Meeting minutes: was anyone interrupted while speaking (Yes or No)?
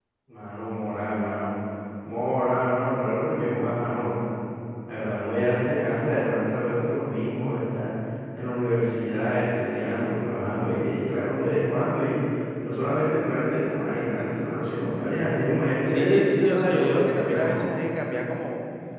Yes